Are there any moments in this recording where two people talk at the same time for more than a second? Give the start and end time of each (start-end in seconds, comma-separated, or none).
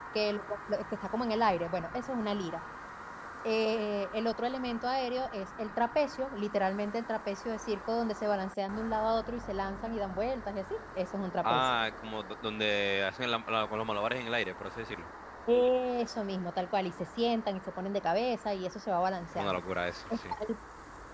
none